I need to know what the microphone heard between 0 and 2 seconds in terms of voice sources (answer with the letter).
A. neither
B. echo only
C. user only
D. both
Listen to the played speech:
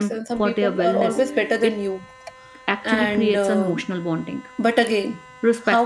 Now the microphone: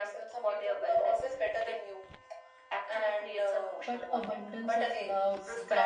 B